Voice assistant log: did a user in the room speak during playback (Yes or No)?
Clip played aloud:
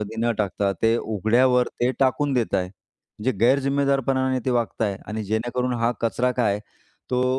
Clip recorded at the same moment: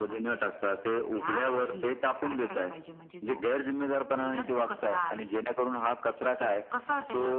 Yes